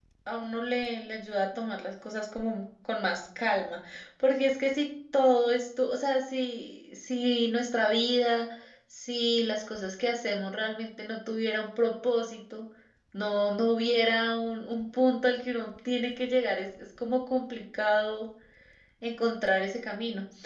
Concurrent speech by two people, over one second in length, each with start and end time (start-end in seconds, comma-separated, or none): none